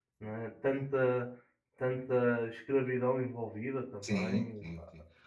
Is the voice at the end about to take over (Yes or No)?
Yes